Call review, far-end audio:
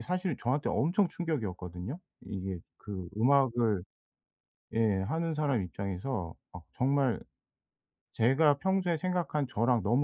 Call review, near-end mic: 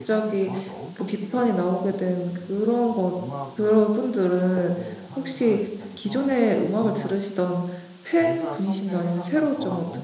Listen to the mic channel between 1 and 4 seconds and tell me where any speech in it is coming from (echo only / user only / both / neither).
both